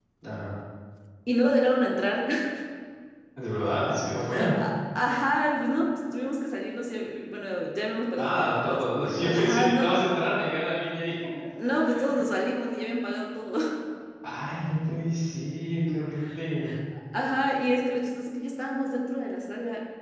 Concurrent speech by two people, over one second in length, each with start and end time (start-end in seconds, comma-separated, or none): 8.2-9.9